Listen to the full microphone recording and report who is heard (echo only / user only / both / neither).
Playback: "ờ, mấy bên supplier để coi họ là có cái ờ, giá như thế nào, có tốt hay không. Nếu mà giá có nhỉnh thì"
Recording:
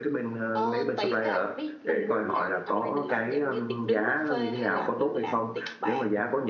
both